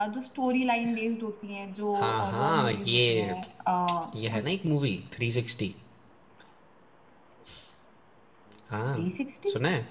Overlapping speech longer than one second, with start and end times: 2.0-3.4

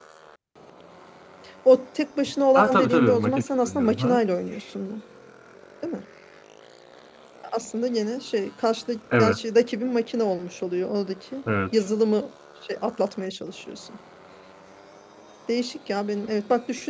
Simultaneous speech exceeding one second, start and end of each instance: 2.5-4.2

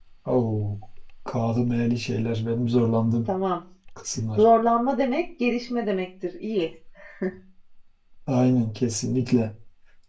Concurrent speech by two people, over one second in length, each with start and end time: none

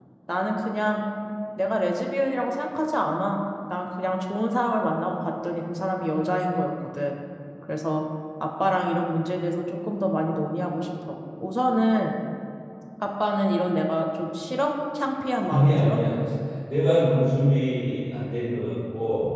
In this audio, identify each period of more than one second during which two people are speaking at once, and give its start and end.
none

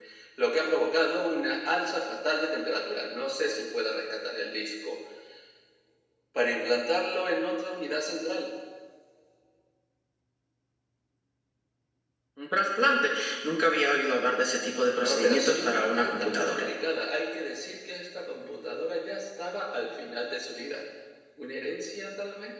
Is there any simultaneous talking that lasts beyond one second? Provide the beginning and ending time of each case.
15.0-16.6

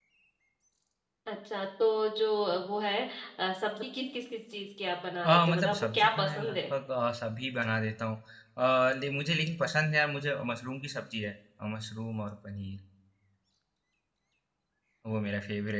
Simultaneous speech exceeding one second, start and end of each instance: 5.2-6.6

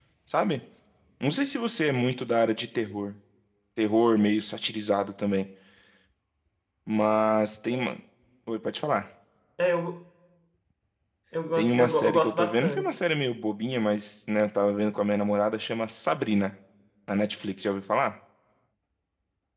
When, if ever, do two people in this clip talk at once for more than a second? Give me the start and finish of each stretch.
11.6-12.9

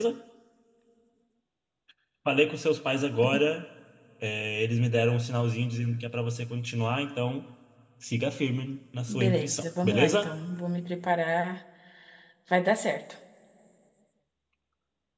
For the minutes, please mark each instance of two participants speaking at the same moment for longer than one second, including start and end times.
9.1-10.3

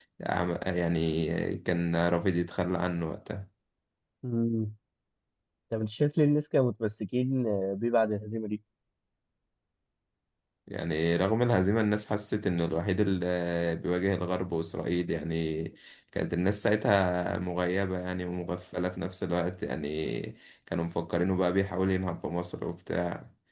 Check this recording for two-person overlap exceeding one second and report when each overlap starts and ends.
none

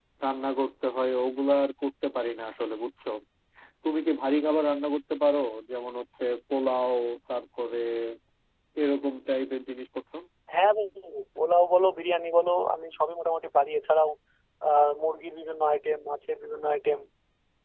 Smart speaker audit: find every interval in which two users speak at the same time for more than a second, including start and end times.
none

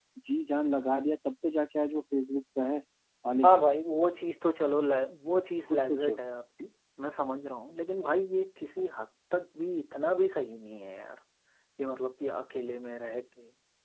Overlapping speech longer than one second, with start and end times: none

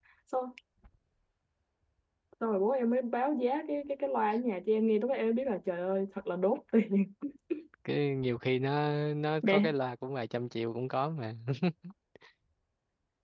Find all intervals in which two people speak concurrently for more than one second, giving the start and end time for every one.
none

